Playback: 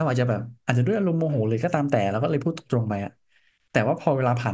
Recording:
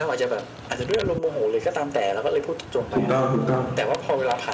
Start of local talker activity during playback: 2.9 s

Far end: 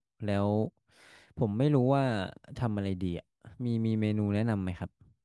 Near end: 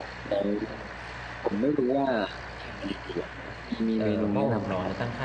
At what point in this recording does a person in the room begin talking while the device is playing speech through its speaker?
3.9 s

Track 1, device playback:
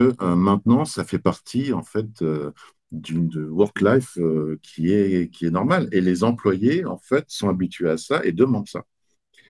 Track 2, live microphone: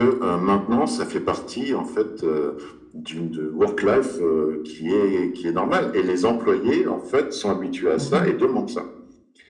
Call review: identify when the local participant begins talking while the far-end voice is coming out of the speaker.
8.0 s

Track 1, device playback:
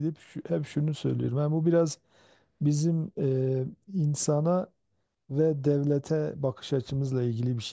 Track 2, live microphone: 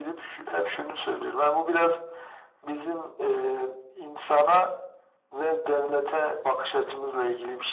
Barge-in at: none

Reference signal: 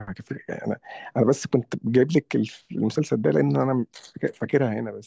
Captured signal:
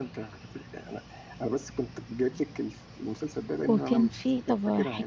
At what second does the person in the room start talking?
3.7 s

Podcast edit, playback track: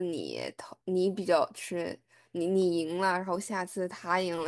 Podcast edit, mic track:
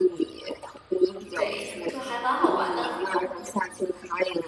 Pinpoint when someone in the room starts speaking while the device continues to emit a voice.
1.3 s

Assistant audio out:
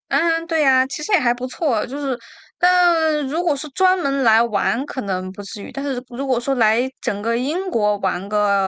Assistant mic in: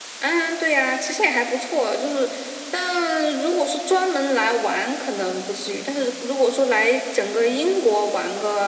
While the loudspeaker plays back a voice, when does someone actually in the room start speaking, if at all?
none

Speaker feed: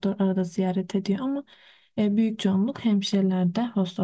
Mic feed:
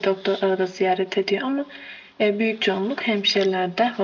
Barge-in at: none

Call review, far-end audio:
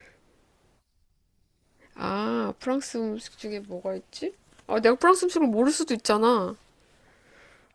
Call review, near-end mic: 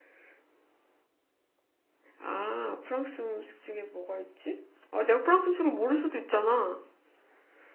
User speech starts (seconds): none

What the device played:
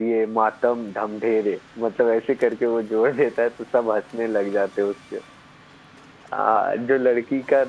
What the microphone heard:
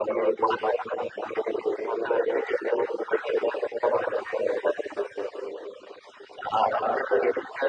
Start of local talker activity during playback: none

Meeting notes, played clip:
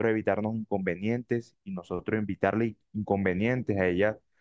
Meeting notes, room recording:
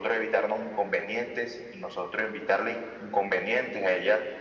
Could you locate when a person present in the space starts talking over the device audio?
none

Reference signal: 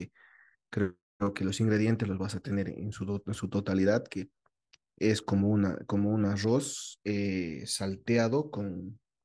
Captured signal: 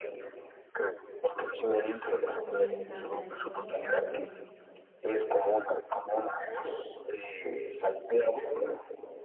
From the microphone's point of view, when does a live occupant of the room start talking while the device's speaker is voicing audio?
2.4 s

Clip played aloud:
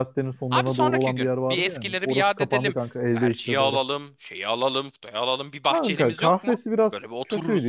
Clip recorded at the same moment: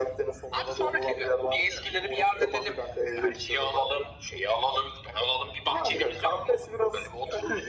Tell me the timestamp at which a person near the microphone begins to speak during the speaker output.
none

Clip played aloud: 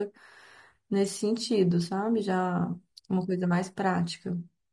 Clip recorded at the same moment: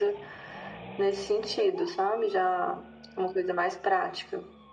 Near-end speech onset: none

